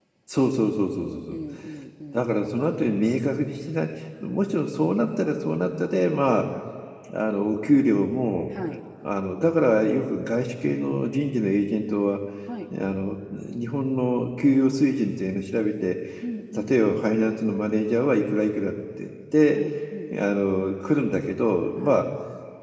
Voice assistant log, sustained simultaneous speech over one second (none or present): none